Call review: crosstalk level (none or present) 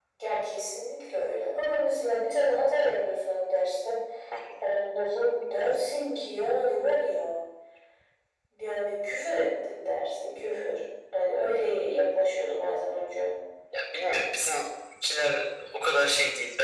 none